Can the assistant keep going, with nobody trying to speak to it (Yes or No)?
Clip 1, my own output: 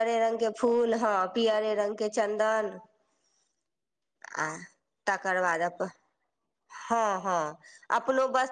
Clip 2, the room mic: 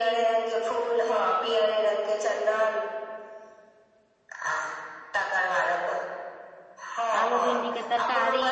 No